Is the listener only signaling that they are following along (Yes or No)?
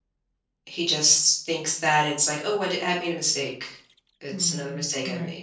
No